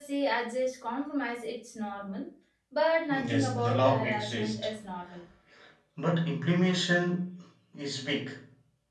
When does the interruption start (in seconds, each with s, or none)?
3.1 s